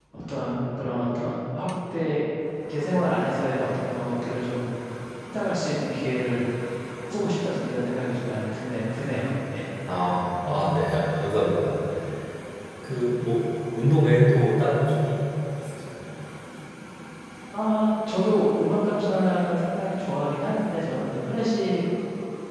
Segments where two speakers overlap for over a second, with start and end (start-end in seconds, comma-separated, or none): none